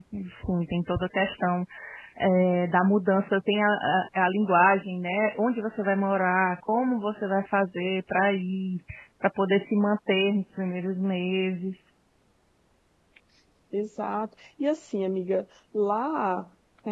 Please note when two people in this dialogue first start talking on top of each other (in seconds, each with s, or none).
none